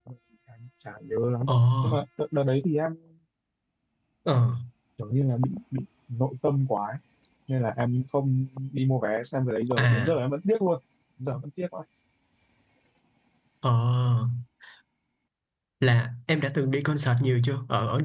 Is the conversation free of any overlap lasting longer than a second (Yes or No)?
Yes